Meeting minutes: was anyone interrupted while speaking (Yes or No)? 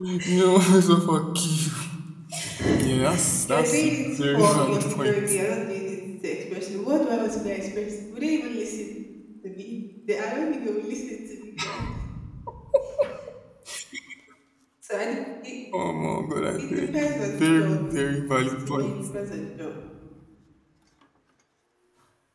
Yes